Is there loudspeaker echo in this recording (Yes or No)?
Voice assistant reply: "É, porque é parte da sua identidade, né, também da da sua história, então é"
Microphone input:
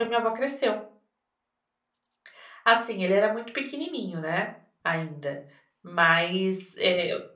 No